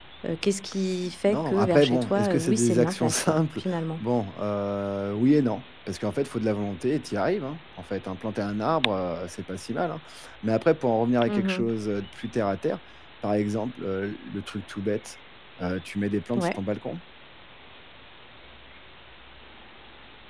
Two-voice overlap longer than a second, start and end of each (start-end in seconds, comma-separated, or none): 1.3-3.6